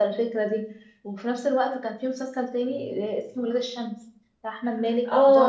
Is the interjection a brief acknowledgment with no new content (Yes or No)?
No